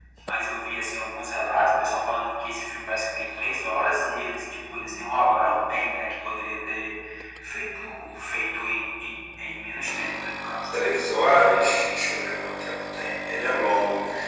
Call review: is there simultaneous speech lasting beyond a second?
No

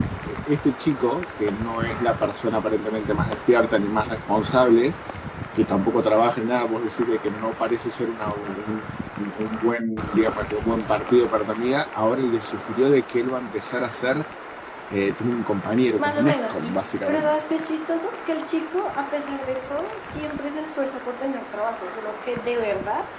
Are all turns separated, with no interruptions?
No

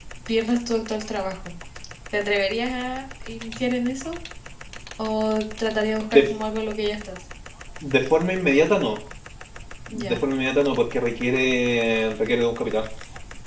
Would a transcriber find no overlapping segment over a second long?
Yes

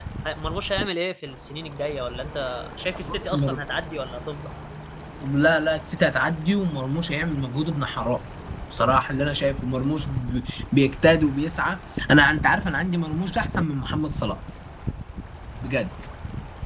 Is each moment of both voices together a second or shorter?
Yes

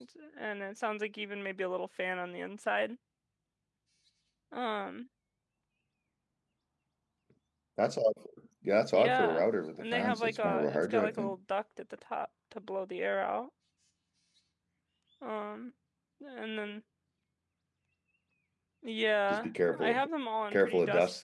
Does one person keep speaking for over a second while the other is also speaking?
Yes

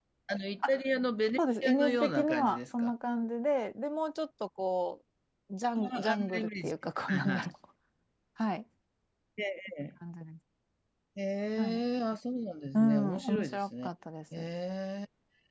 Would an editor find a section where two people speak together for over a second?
Yes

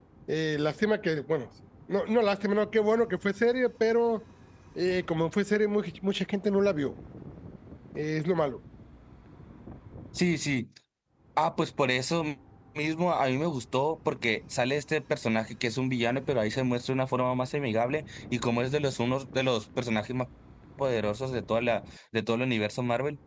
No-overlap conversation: Yes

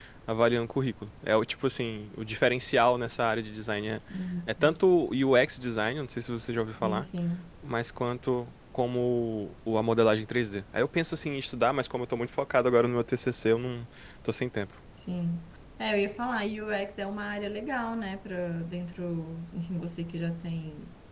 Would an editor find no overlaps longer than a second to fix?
Yes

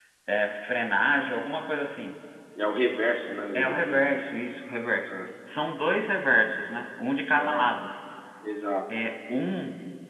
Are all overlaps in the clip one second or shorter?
Yes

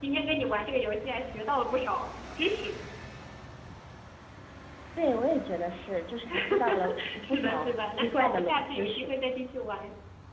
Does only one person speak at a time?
No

